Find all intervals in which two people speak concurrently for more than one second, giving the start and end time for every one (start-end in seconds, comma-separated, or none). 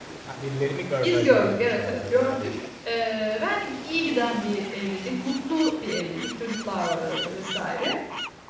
1.0-2.5